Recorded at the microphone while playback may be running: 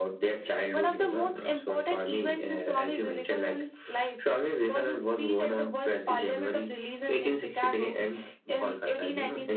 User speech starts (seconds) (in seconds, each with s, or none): none